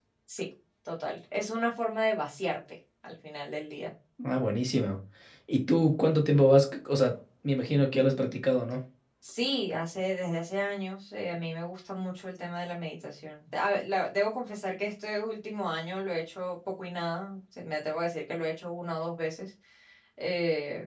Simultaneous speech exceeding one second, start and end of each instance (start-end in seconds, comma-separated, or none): none